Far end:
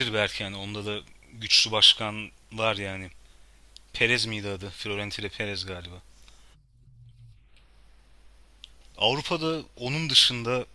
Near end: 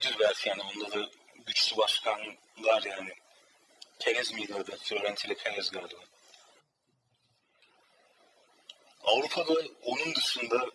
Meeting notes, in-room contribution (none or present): none